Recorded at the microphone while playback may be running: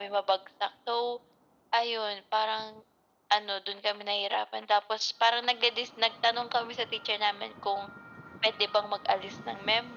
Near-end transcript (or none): none